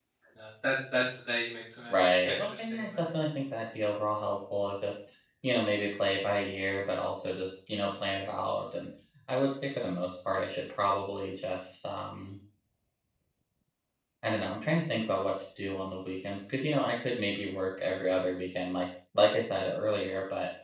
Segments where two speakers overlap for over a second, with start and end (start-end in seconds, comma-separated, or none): 1.9-3.1